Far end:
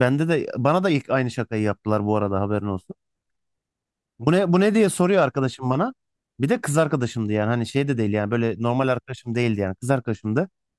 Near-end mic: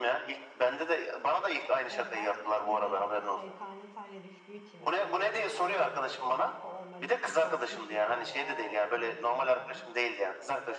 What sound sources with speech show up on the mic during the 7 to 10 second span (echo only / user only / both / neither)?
both